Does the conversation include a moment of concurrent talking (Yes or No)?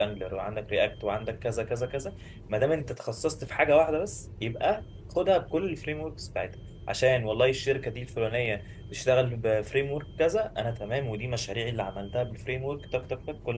No